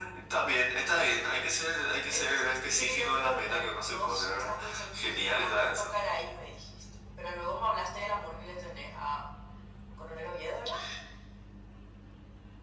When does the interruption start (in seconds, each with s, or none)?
2.1 s